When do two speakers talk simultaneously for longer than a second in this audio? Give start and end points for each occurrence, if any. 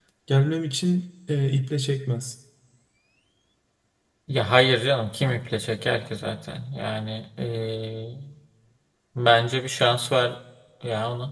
none

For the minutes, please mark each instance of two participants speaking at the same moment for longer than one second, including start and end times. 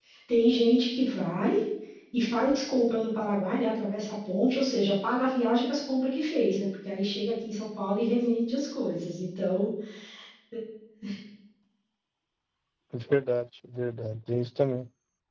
none

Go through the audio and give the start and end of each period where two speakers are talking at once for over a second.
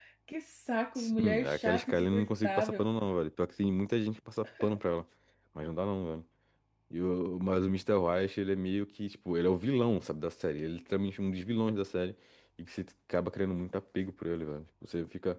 0.9-2.9

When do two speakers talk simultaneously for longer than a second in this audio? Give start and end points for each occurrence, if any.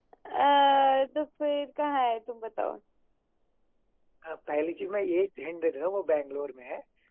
none

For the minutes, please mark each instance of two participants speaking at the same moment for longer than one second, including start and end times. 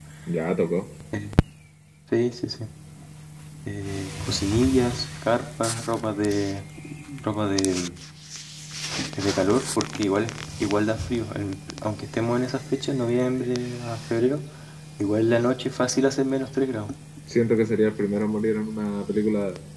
none

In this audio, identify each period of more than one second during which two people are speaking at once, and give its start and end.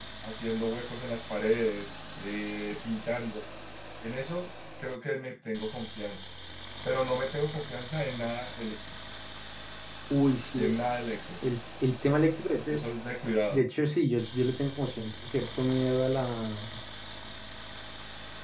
none

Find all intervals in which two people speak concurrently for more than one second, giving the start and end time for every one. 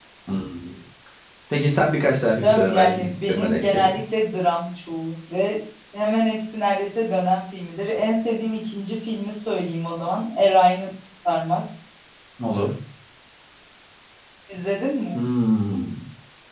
2.4-4.0

